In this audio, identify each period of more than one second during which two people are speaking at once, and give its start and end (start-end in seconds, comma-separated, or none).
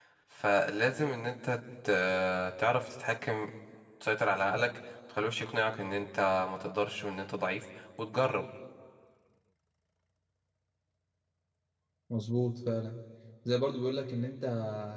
none